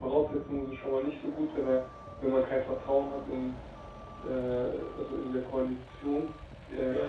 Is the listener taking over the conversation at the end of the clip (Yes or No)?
Yes